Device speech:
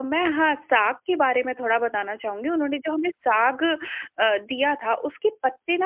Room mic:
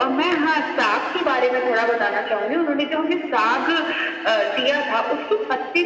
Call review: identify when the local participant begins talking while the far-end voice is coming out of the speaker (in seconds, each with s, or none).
none